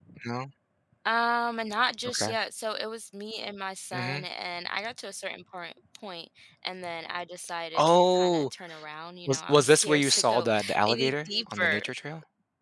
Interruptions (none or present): present